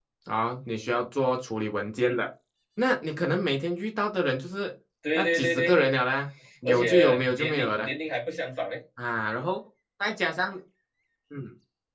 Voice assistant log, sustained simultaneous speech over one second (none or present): present